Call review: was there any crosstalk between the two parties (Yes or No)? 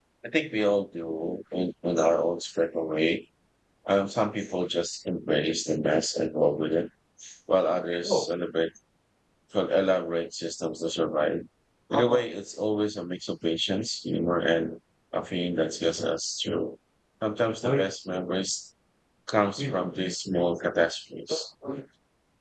No